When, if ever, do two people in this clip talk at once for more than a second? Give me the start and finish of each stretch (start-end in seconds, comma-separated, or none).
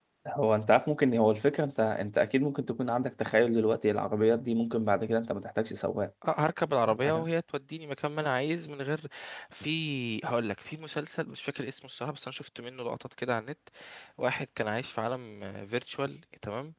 none